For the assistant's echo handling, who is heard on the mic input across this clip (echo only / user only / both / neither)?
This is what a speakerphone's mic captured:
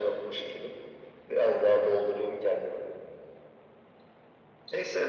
echo only